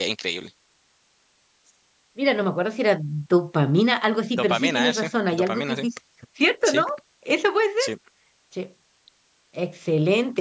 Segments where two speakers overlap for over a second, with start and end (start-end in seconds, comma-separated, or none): 4.4-5.8